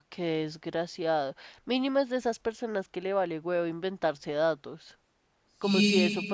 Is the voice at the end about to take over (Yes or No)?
No